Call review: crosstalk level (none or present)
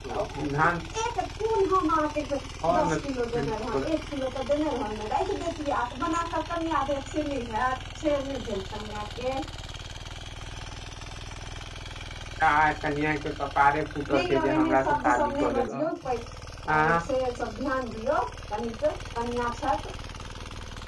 present